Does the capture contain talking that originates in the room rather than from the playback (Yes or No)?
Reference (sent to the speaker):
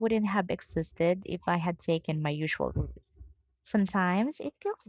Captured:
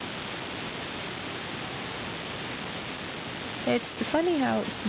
Yes